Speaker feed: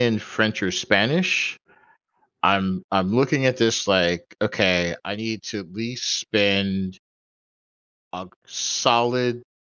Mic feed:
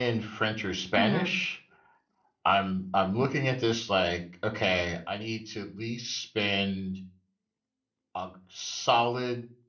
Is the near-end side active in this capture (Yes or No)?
Yes